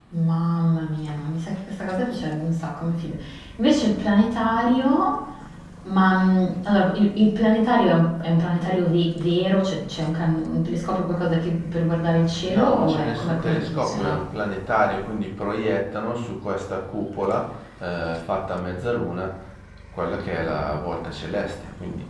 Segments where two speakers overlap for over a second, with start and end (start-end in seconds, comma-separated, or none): 12.4-14.2